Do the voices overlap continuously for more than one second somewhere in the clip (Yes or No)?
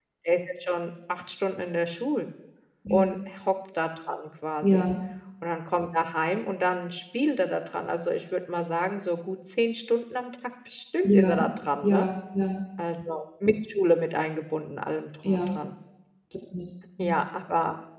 No